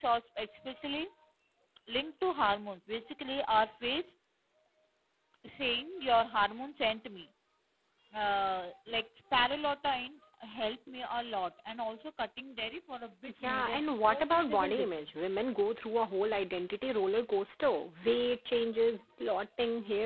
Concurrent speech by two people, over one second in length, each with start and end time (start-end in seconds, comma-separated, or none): 13.4-15.2